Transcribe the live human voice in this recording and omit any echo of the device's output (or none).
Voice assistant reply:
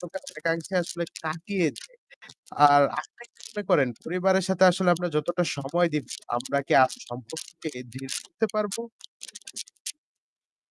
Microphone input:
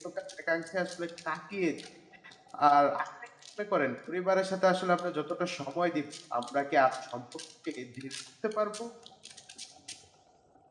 none